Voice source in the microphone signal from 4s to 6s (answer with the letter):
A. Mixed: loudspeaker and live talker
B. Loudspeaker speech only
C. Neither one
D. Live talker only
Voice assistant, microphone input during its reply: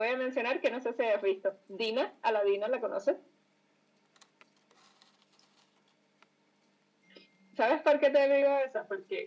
C